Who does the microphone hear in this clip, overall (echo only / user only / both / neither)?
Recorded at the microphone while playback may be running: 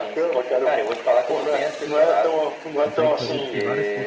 both